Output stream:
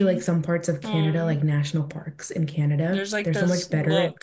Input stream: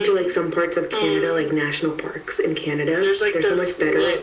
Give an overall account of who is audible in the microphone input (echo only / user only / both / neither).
echo only